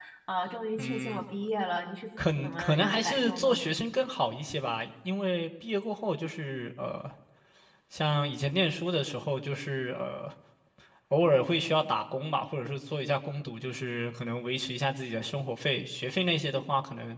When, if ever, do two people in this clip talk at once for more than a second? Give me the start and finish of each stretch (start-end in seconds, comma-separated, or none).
2.4-3.6